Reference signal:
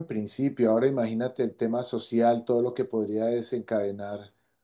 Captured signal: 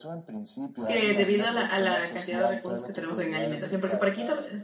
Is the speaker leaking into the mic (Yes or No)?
Yes